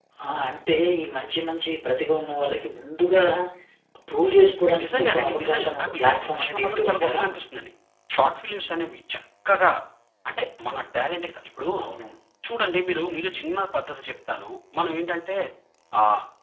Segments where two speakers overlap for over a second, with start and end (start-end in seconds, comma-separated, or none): 4.8-7.2